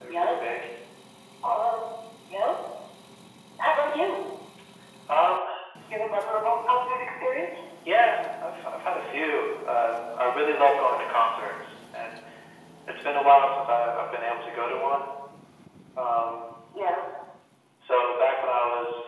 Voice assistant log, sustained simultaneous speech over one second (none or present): none